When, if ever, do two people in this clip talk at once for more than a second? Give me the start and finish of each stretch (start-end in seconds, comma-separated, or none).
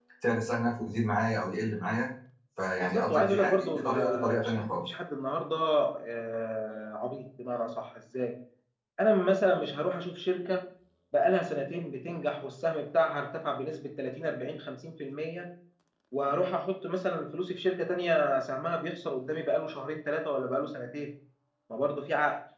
2.8-4.8